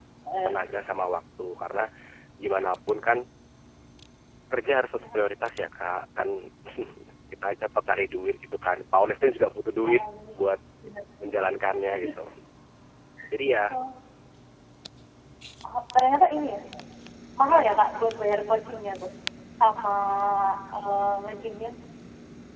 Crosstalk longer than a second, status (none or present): none